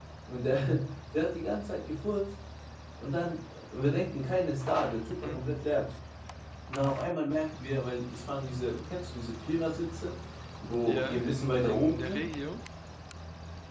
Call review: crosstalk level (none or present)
present